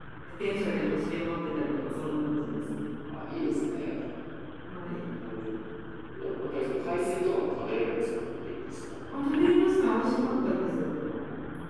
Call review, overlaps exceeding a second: none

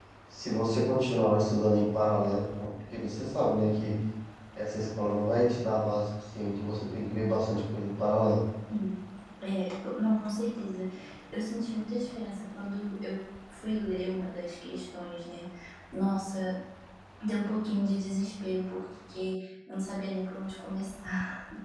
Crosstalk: none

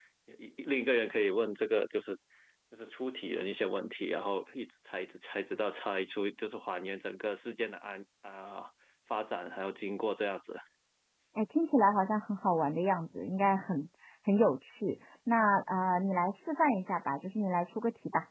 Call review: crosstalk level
none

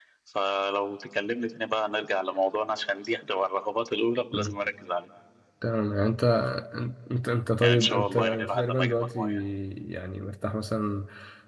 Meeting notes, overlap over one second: present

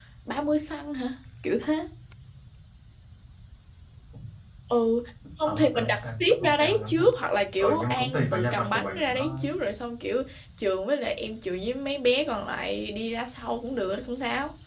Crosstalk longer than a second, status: present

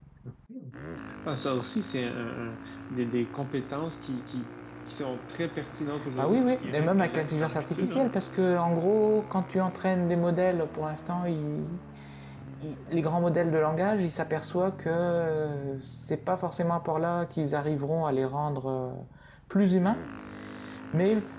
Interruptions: present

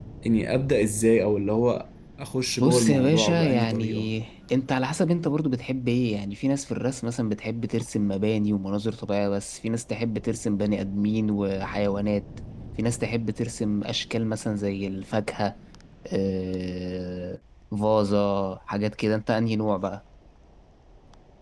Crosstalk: present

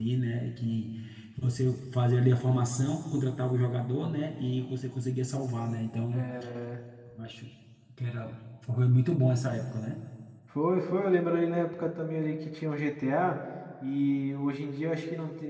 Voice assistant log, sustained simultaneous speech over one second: none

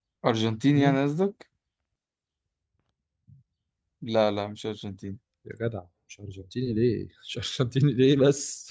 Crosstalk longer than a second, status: none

